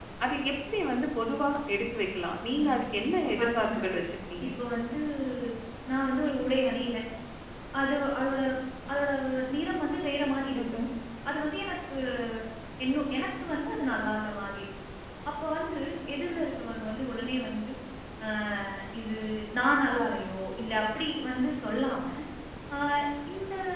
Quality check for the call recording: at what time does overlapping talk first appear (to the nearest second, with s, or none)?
3 s